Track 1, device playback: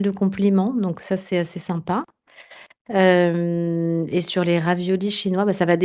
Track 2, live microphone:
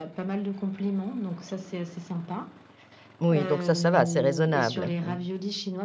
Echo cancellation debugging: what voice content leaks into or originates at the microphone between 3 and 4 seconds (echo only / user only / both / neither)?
both